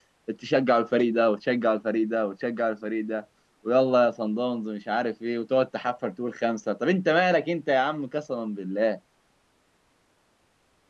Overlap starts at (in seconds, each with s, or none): none